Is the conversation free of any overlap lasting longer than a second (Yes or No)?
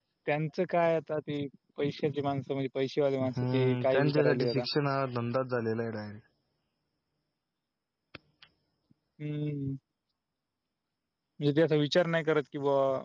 No